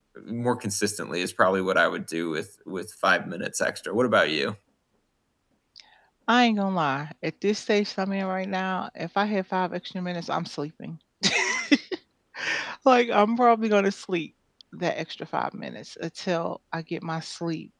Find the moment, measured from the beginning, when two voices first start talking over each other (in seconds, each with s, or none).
none